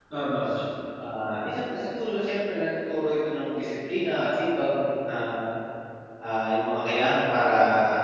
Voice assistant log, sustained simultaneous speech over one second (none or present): none